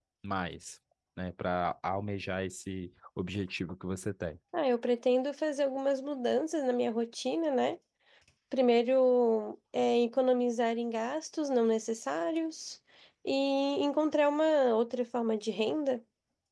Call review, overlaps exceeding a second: none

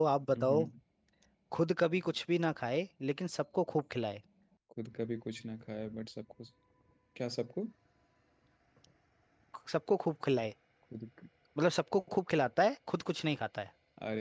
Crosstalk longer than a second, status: none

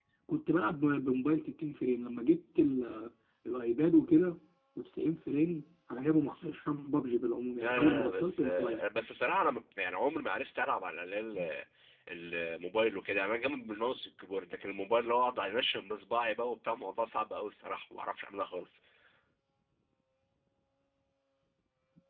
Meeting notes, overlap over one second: present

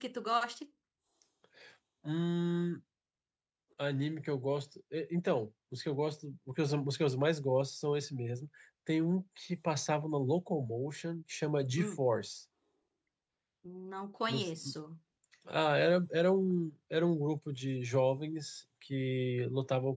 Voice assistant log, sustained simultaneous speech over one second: none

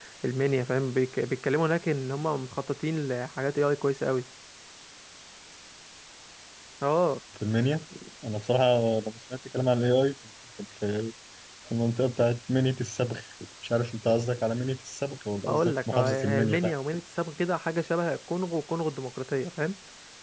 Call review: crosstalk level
present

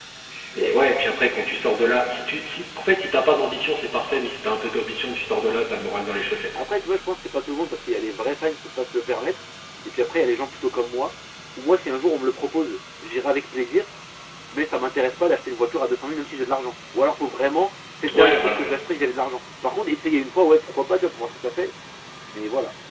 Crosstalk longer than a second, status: none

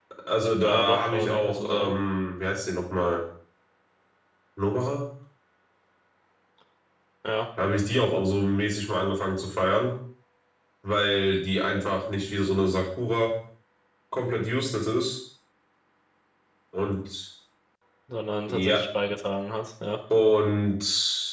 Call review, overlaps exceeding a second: present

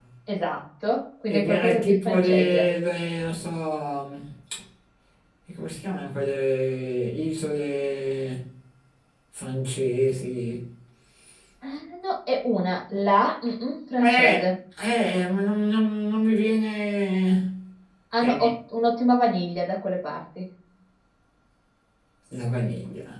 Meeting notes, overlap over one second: present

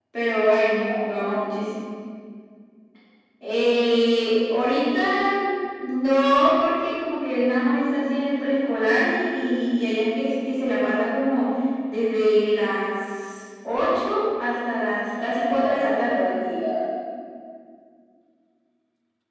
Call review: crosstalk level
present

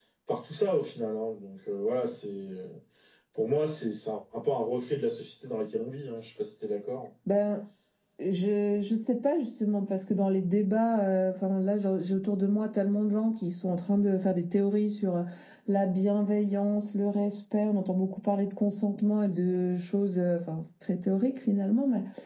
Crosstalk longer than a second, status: none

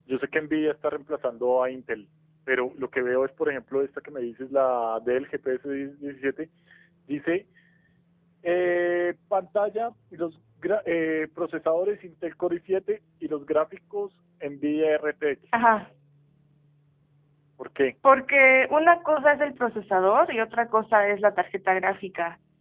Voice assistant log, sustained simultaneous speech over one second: none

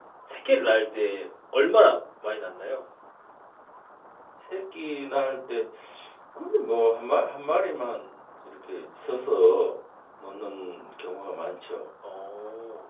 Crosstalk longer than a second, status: none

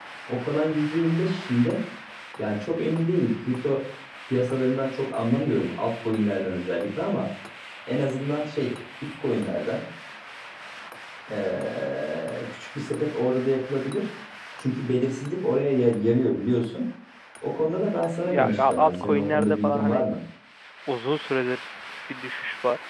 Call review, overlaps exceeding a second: present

